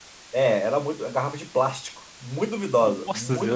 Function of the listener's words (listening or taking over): taking over